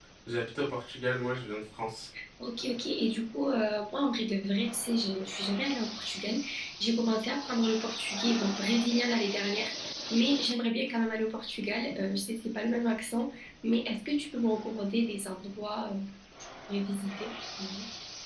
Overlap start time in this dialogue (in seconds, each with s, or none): none